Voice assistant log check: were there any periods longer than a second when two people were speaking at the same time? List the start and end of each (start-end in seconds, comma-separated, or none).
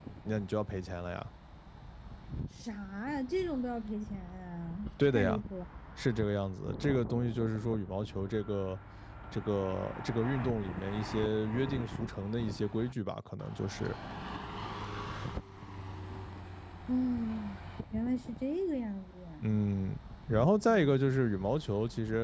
none